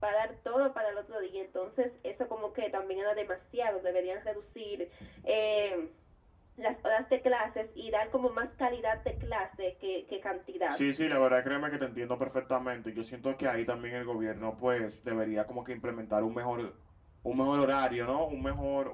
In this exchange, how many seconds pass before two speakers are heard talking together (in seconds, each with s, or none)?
none